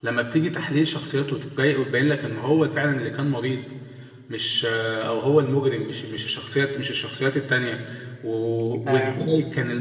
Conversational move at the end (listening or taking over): listening